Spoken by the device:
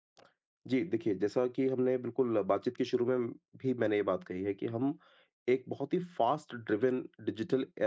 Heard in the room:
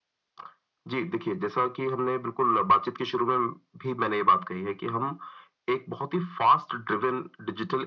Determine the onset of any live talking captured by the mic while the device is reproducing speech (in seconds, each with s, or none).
none